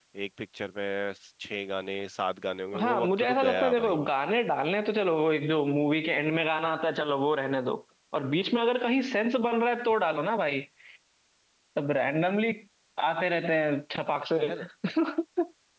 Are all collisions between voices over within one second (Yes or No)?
No